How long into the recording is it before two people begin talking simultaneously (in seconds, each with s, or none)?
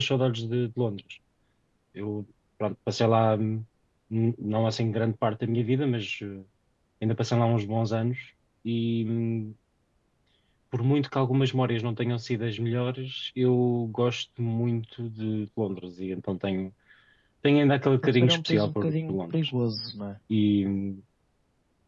18.0 s